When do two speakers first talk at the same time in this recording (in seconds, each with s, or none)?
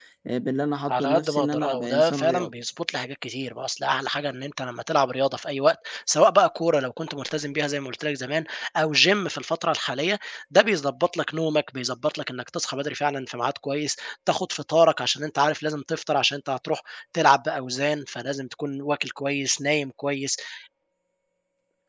0.9 s